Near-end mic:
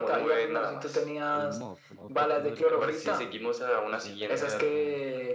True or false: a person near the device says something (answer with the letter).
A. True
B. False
A